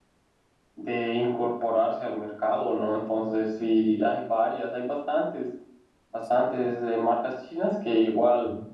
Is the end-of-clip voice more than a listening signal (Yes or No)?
No